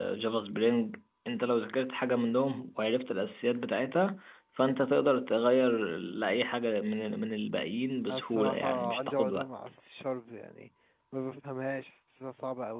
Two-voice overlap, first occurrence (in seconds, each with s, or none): 8.1 s